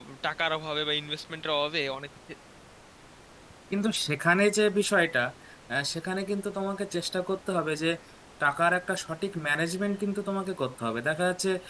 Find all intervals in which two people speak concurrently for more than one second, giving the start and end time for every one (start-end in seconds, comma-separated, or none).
none